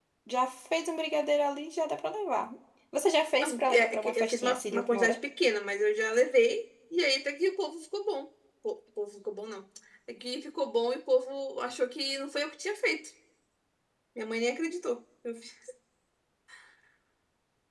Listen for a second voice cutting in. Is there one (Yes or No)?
Yes